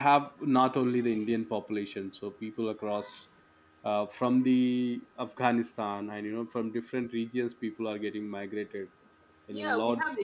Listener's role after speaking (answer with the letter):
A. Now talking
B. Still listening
A